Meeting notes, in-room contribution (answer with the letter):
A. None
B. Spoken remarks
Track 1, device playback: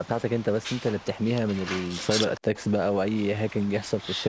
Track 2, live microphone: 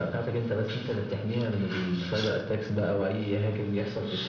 A